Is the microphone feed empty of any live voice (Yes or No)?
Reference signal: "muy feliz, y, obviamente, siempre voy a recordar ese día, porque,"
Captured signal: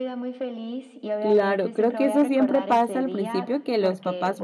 No